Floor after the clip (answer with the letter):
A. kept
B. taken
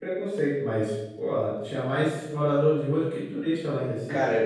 B